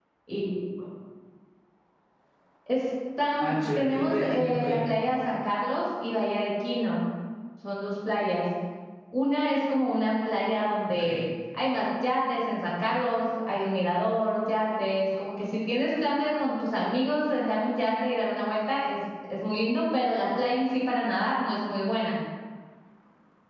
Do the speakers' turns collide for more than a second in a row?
Yes, from 3.4 s

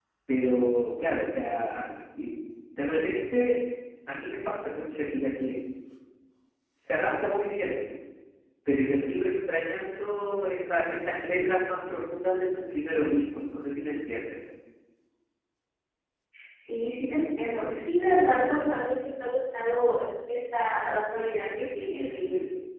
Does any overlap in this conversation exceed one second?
No

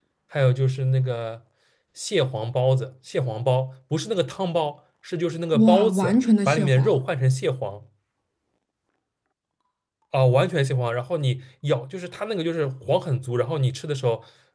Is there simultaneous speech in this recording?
Yes, from 5.5 s

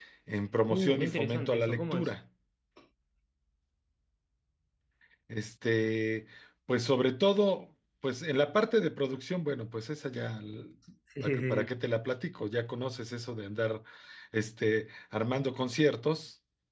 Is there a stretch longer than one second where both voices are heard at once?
Yes, from 0.7 s

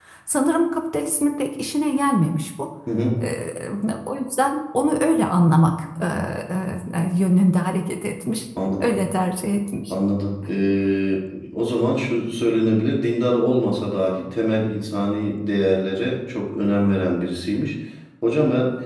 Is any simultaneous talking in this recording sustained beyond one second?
No

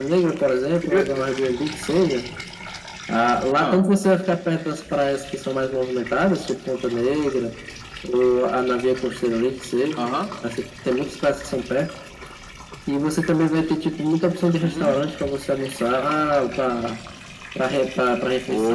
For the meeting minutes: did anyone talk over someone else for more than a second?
No

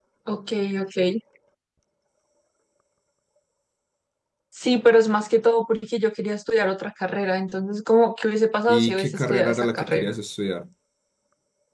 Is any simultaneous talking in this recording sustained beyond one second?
Yes, from 8.7 s

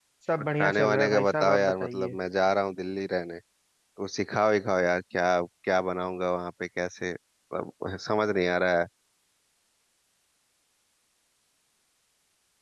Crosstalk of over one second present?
Yes, from 0.6 s

